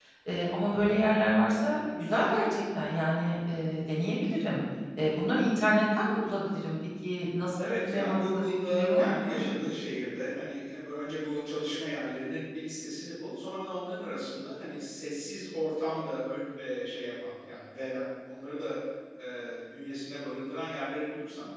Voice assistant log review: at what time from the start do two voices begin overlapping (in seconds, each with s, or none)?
7.6 s